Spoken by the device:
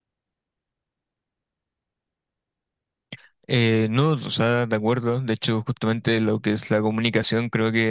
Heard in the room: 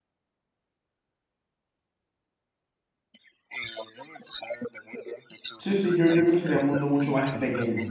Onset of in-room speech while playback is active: 5.6 s

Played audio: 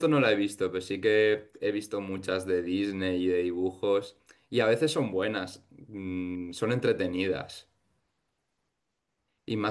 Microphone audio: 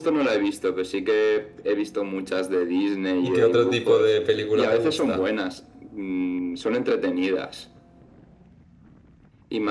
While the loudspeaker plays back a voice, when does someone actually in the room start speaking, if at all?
3.1 s

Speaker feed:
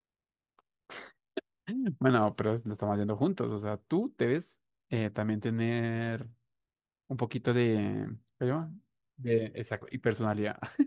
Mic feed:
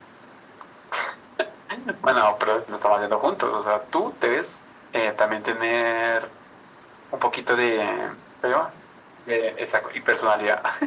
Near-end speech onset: none

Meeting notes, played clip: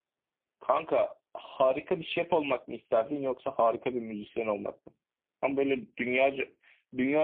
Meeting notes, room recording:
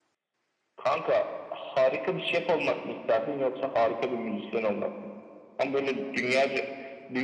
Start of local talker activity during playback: none

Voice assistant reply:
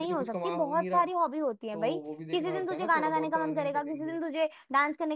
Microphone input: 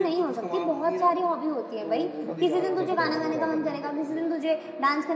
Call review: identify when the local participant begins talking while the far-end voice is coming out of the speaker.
2.3 s

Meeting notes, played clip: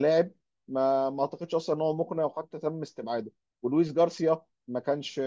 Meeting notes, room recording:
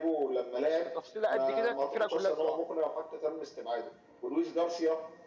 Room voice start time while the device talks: 0.8 s

